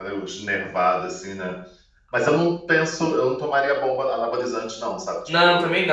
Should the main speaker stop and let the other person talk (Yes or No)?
Yes